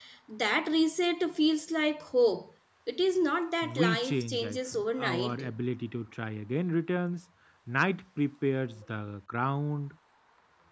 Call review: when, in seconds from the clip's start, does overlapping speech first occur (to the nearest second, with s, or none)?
4 s